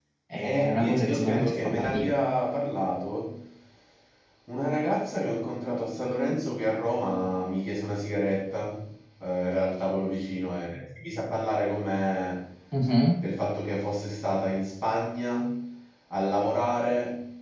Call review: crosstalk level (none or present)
present